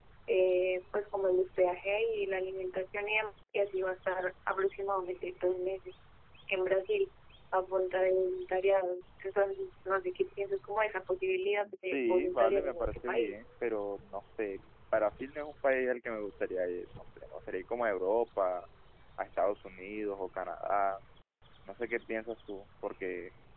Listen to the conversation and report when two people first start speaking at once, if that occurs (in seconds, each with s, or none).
11.9 s